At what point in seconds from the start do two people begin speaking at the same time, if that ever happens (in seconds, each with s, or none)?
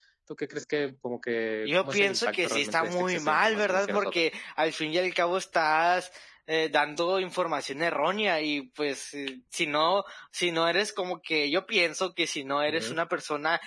1.6 s